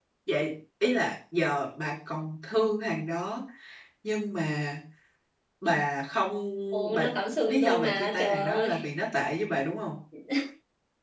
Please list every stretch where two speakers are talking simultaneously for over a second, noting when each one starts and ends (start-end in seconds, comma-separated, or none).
7.5-8.7